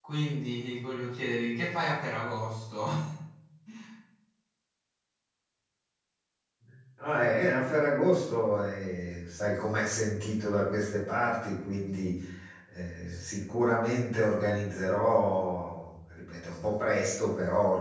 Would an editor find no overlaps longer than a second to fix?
Yes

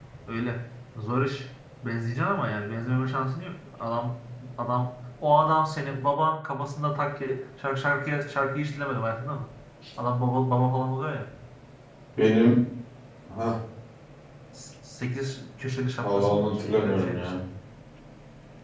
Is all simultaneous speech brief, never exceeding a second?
No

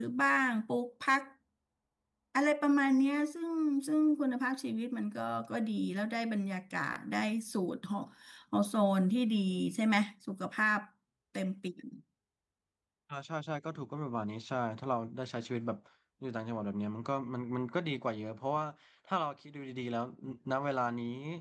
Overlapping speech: No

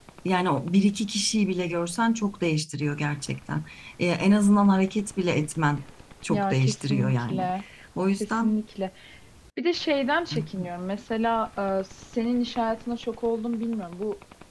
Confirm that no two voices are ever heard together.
No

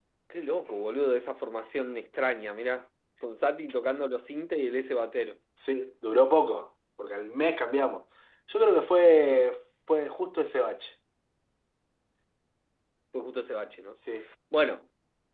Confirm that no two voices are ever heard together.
Yes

